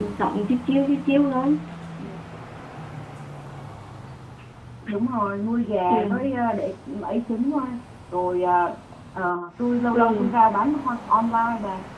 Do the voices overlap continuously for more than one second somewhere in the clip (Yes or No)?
No